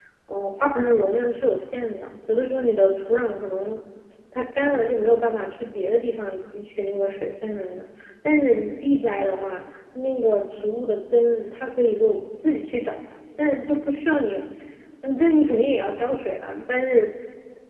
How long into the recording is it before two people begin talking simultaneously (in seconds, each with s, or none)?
none